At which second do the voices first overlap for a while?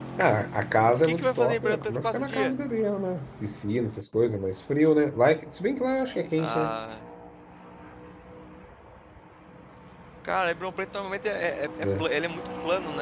1.0 s

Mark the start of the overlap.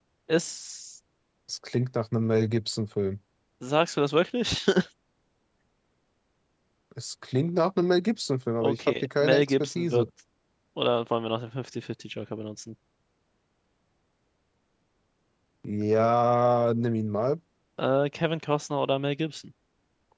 8.6 s

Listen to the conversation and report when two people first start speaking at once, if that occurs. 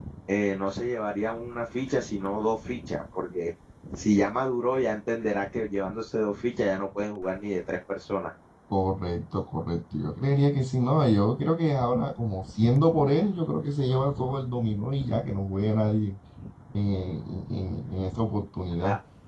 none

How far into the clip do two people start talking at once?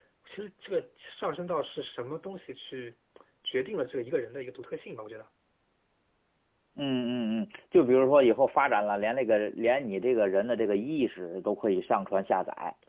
none

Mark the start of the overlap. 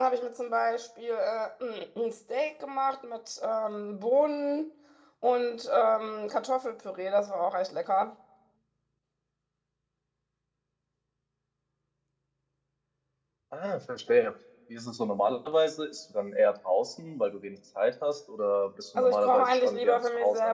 18.9 s

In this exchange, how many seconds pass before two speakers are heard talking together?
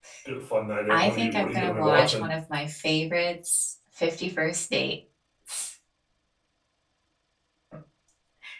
0.9 s

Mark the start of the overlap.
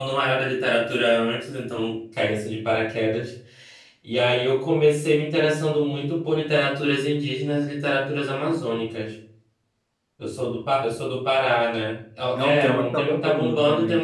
12.4 s

